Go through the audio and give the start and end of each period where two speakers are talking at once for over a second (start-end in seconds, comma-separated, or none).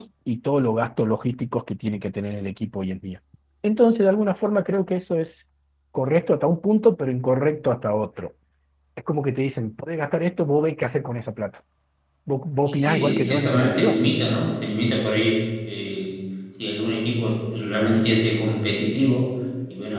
12.6-14.0